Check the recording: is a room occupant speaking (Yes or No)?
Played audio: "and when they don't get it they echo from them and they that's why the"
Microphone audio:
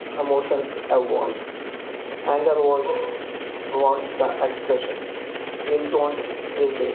Yes